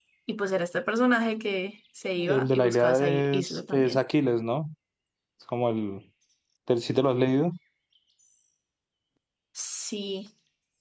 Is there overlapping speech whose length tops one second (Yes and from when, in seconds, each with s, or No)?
Yes, from 2.2 s